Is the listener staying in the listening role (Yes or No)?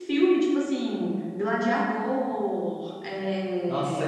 No